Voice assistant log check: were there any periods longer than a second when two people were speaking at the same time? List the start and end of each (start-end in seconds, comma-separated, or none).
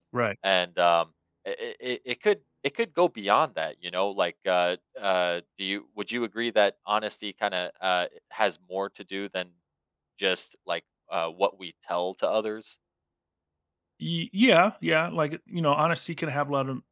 none